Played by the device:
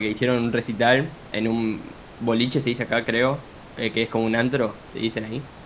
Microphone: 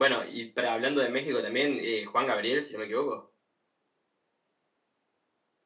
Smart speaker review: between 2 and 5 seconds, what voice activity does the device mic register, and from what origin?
user only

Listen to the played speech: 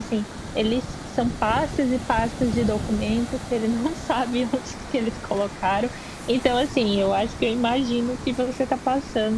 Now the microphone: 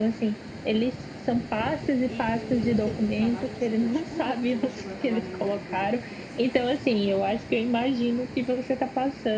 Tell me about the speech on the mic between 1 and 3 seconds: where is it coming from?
both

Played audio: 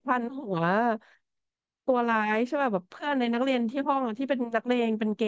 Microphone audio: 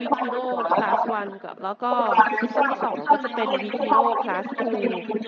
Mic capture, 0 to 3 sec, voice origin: both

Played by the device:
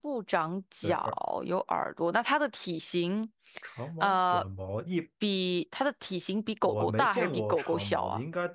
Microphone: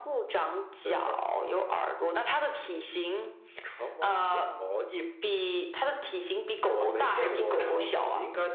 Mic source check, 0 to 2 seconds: echo only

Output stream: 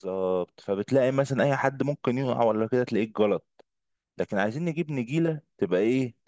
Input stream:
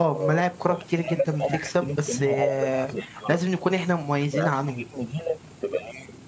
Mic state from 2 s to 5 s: both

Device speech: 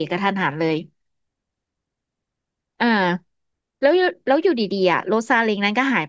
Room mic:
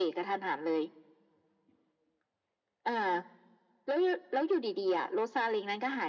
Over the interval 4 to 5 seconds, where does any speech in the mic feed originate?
echo only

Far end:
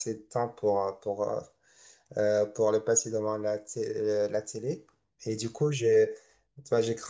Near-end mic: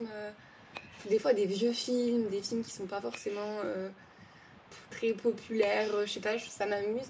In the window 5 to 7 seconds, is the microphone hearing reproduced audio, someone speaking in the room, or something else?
user only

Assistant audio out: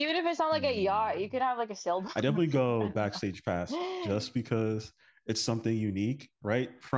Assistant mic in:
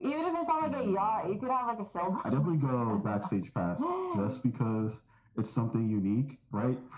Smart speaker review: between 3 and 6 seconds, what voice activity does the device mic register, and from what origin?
echo only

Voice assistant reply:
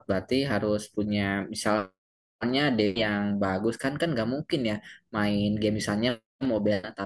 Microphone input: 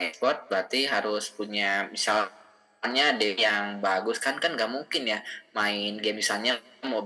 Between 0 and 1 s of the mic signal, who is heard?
echo only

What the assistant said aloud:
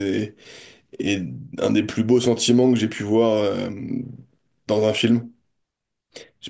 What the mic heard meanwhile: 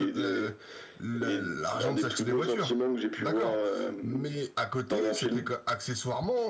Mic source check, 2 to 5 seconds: both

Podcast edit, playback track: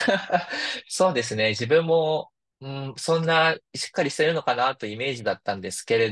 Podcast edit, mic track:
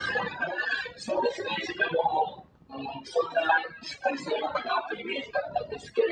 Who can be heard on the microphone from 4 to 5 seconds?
echo only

